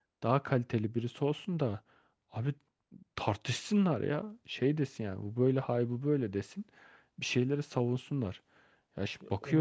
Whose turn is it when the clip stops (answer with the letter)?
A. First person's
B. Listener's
A